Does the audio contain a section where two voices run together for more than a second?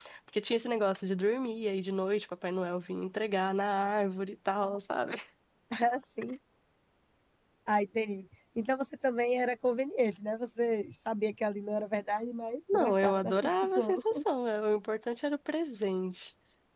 Yes, from 12.7 s

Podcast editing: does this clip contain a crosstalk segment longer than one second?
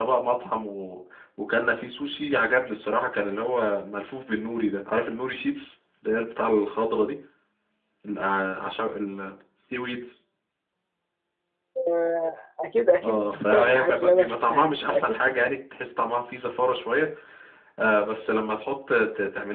Yes, from 13.0 s

